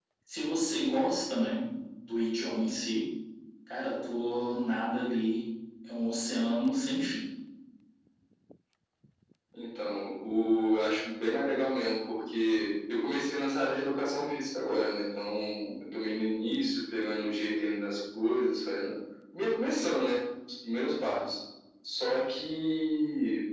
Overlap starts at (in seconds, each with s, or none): none